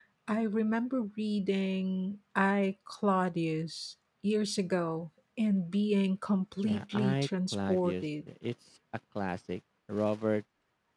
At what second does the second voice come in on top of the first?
6.6 s

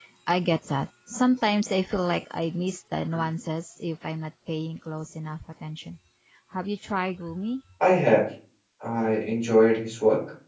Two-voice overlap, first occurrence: none

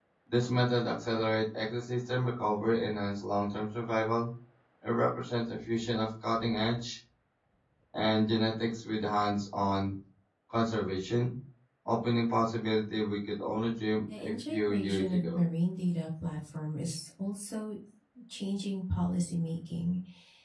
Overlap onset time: 14.1 s

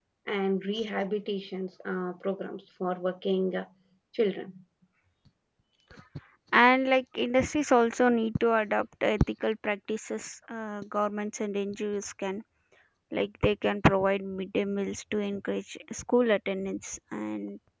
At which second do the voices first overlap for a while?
none

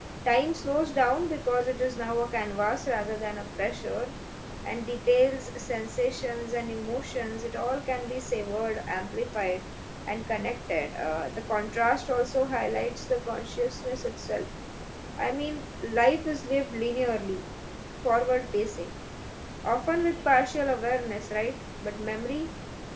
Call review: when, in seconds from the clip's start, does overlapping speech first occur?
none

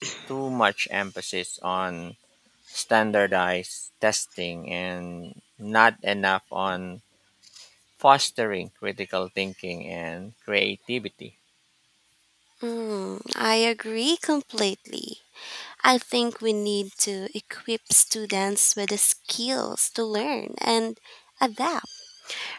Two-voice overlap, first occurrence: none

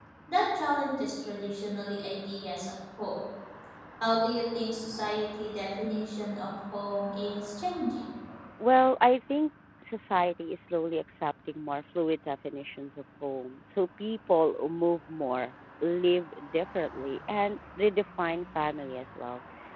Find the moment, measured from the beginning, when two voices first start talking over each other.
none

